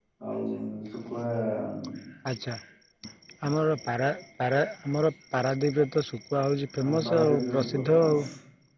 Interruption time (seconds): 6.8 s

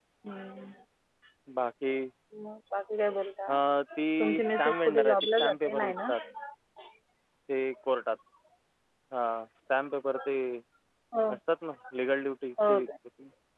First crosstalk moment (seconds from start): 4.0 s

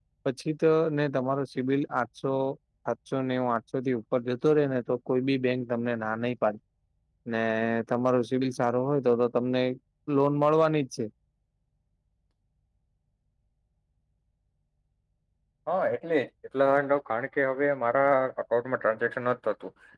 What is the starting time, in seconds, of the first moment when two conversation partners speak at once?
none

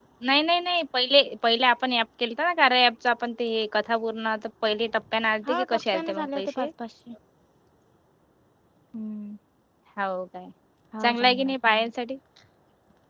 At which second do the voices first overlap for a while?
5.5 s

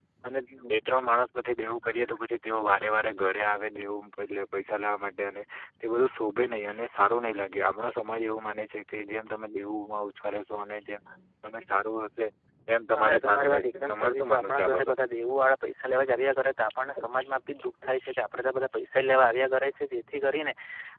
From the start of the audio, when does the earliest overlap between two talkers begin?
13.0 s

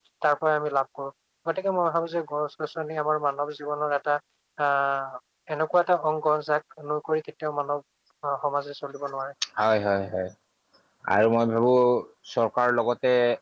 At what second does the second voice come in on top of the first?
none

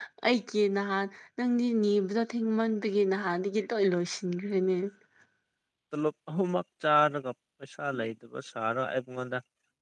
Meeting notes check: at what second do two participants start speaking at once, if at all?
none

